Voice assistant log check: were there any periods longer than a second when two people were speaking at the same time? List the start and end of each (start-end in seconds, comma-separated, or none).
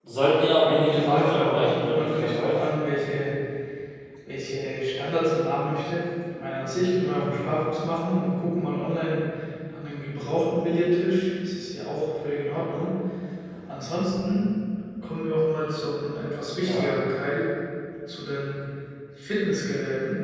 0.6-2.7